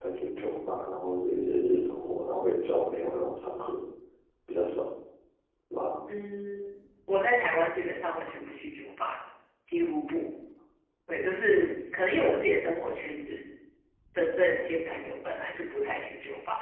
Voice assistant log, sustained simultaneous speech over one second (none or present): none